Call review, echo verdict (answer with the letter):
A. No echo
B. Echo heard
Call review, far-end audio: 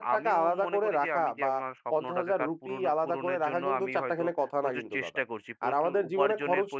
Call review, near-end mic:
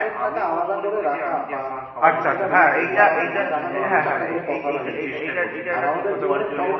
B